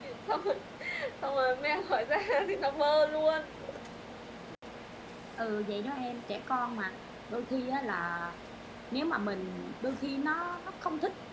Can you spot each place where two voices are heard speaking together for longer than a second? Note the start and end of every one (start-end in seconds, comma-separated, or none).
none